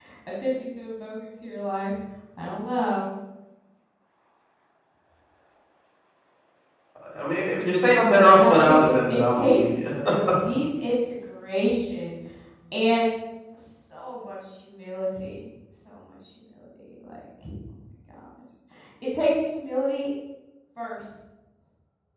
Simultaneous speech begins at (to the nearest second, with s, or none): 8 s